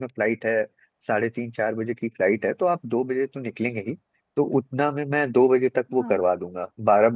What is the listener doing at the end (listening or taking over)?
listening